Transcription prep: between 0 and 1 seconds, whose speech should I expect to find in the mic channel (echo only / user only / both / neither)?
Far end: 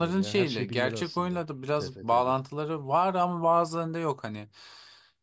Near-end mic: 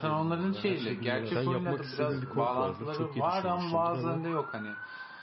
echo only